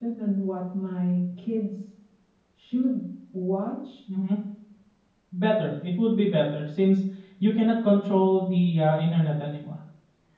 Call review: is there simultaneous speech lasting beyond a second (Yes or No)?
No